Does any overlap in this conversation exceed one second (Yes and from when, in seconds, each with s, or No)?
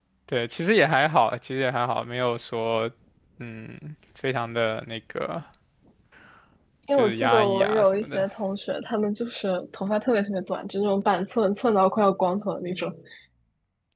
Yes, from 6.9 s